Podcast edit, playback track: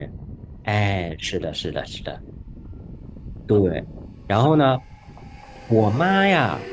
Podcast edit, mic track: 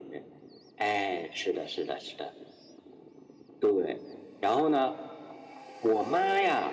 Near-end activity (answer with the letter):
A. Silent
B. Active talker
A